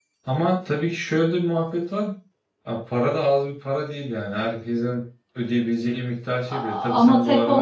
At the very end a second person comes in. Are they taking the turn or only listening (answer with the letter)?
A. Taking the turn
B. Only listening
A